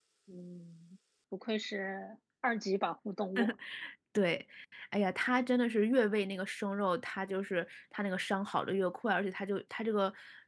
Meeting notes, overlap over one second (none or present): none